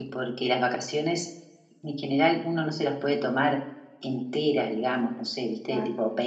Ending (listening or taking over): listening